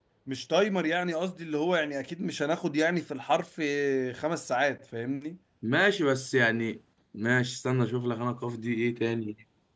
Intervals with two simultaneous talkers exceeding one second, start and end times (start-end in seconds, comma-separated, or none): none